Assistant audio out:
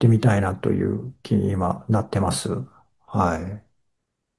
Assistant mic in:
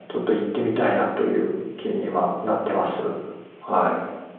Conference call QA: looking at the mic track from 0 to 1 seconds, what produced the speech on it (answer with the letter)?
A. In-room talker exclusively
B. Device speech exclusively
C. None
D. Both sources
B